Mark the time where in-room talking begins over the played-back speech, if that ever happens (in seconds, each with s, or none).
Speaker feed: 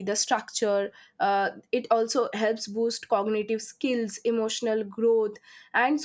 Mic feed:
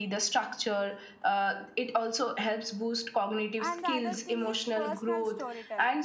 3.7 s